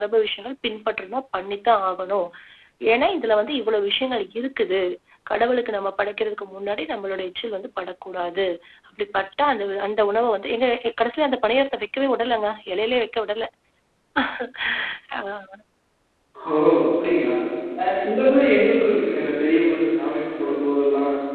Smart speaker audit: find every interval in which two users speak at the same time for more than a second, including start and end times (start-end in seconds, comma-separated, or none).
none